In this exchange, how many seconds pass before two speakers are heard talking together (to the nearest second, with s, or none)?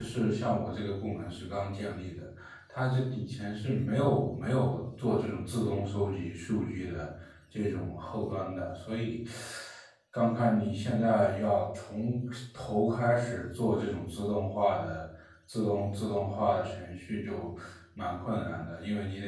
none